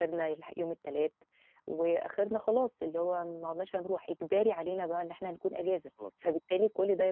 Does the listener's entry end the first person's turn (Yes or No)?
No